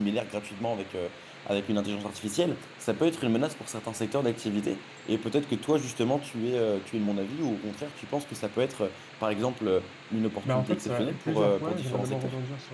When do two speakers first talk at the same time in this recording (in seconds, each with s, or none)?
10.4 s